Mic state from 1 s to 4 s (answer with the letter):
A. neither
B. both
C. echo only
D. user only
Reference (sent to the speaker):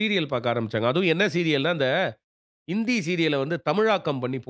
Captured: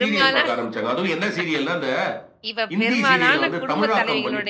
B